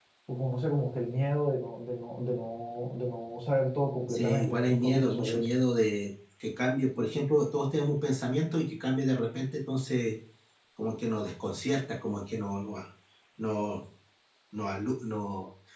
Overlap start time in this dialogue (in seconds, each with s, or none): 4.1 s